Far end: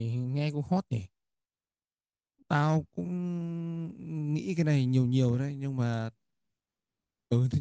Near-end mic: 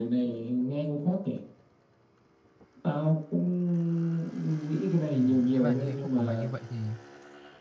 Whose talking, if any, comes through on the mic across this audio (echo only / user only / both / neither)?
both